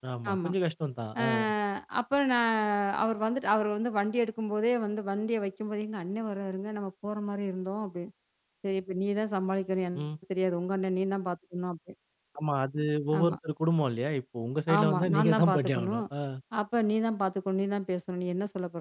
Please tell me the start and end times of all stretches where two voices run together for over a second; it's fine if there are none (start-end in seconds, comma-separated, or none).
14.8-16.0